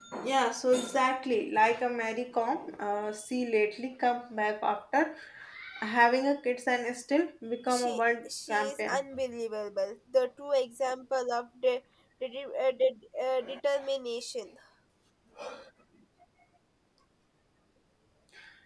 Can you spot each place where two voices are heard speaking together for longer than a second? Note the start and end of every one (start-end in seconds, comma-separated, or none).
7.7-9.0